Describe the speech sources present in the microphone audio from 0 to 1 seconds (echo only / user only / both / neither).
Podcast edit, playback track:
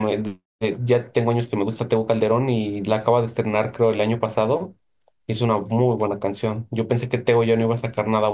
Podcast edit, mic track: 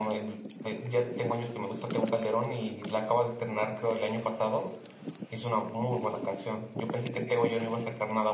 echo only